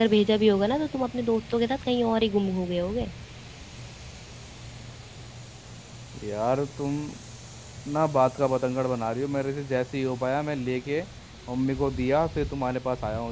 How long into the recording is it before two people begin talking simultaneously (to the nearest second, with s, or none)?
none